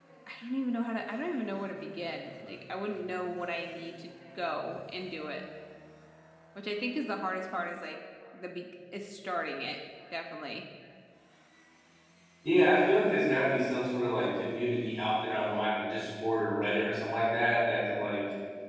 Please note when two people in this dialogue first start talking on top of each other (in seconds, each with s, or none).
none